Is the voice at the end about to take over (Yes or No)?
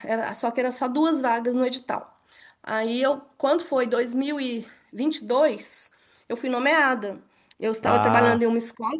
No